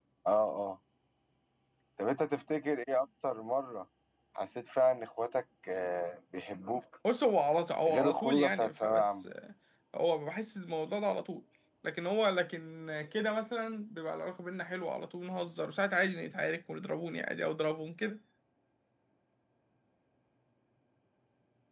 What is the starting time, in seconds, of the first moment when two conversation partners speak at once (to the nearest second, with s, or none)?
8 s